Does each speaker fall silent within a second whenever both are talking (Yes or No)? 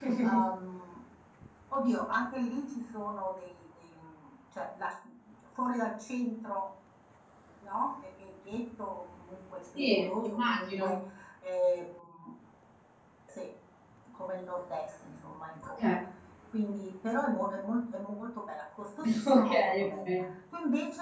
No